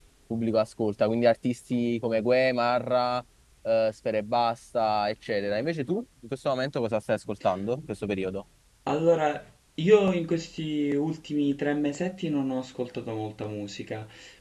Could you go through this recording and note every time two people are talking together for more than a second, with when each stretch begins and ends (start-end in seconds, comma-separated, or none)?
none